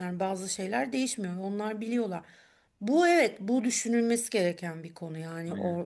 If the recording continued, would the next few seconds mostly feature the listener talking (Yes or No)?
No